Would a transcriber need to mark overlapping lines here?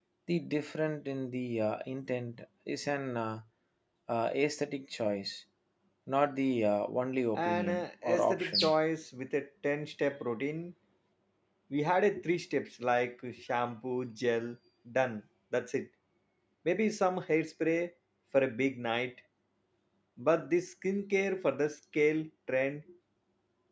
Yes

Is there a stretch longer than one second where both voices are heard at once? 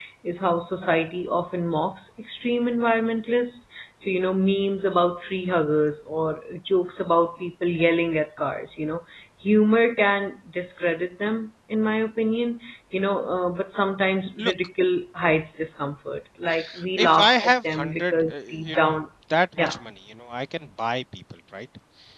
Yes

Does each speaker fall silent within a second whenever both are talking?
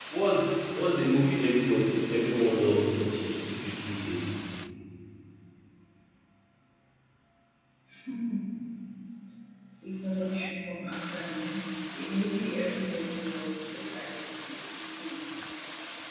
Yes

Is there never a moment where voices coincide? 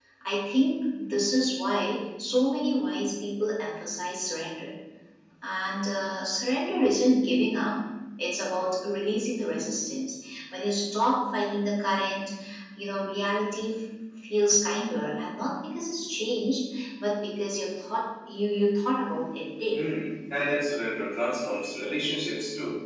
Yes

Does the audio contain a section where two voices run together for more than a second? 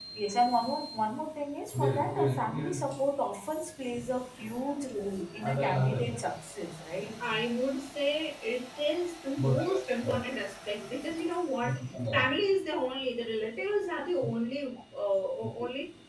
No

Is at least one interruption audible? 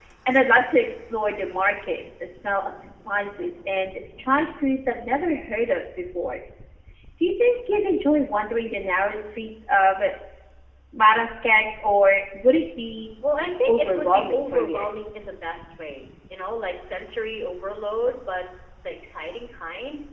Yes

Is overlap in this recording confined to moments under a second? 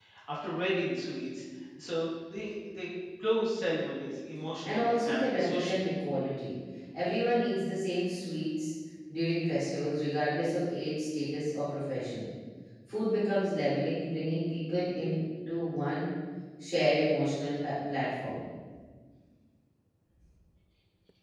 No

